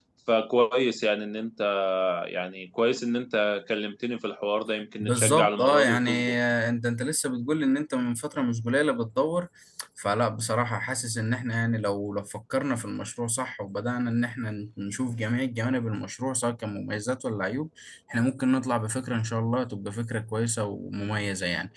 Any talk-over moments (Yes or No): Yes